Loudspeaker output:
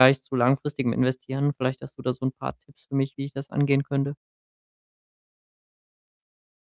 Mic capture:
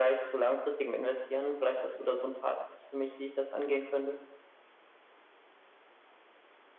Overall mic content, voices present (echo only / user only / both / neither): echo only